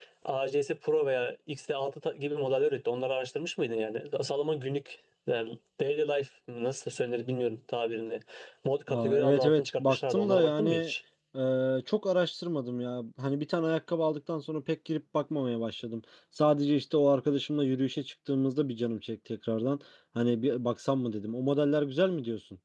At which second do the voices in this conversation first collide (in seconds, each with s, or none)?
8.9 s